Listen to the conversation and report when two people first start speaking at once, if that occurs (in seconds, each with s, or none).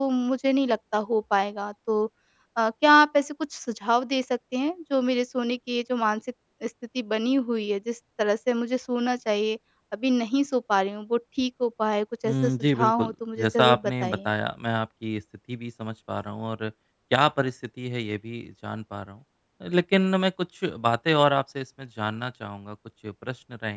12.2 s